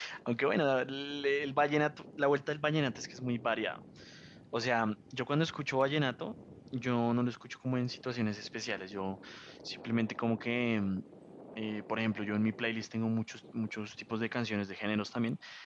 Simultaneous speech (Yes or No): No